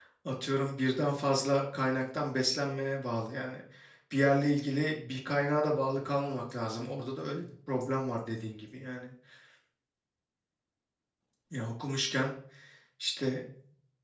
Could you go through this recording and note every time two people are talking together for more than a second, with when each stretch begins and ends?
none

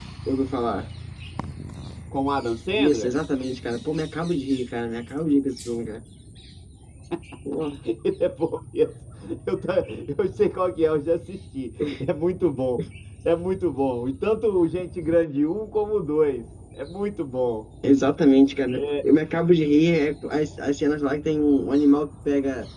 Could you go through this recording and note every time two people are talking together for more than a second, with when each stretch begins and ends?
none

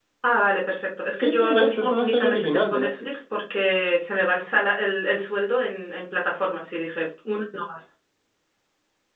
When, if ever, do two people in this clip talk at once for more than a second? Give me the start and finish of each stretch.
1.1-3.2

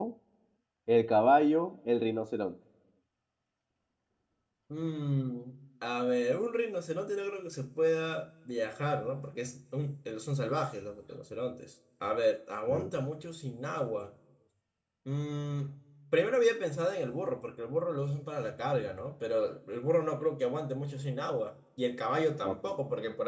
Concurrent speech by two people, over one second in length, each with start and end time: none

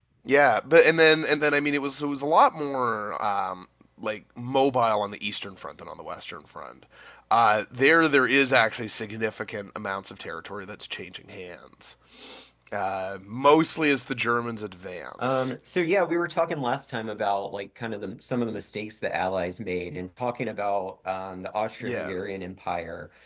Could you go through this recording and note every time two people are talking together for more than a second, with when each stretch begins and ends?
none

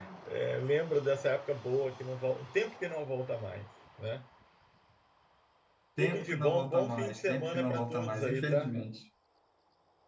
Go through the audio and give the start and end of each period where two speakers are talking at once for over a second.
6.0-8.7

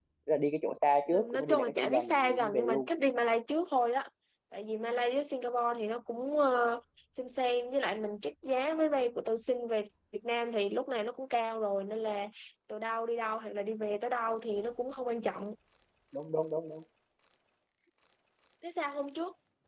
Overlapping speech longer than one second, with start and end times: 1.1-2.9

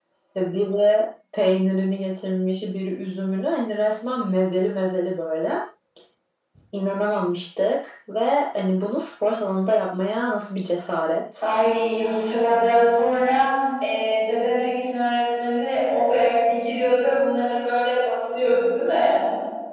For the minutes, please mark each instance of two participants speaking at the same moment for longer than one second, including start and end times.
none

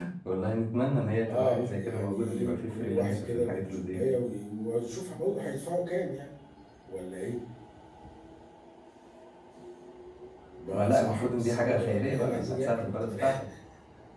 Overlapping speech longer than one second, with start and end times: 1.3-4.2, 10.7-13.4

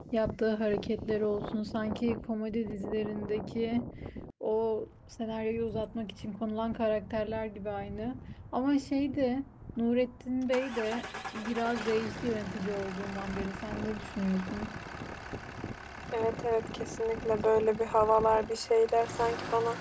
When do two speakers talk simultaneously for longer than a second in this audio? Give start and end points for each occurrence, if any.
none

